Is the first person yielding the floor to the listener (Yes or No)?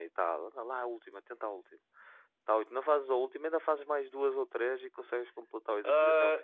Yes